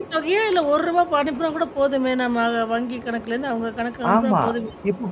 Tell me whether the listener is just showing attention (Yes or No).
No